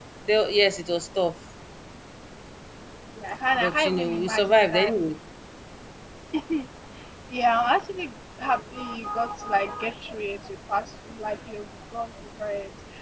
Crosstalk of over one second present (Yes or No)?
Yes